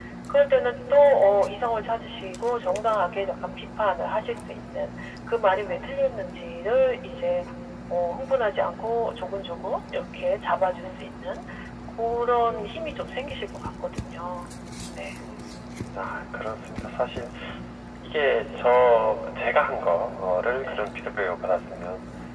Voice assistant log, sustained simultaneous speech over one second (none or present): none